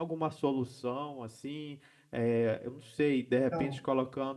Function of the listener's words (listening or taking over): listening